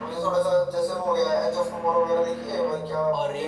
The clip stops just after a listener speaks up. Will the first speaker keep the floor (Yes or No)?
No